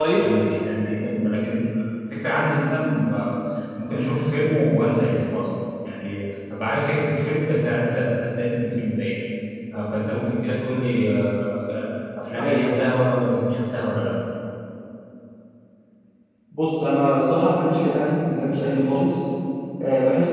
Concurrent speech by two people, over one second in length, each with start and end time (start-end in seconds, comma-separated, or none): none